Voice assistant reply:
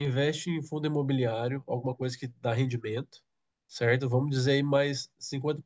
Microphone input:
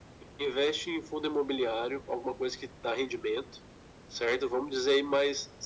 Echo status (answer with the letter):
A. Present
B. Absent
A